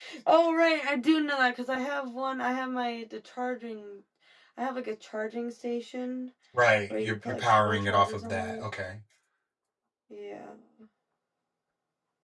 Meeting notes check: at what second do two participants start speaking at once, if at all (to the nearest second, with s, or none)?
7 s